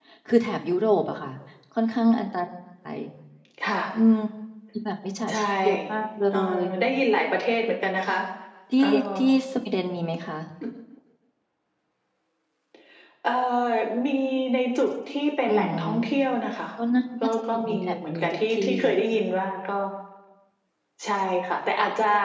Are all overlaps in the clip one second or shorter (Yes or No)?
No